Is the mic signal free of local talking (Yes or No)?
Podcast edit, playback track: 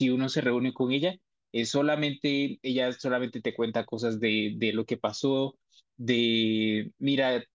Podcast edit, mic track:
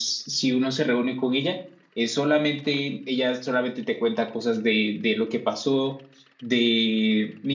Yes